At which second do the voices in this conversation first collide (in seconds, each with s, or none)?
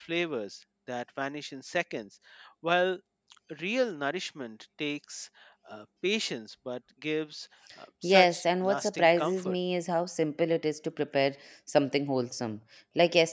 8.0 s